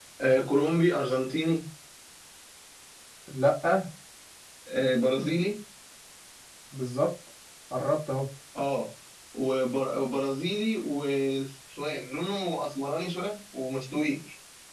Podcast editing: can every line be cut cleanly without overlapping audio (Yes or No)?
Yes